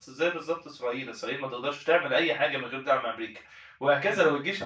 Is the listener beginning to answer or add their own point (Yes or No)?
No